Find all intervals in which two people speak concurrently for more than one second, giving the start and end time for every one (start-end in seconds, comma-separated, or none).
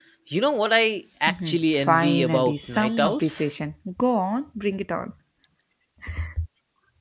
1.3-3.5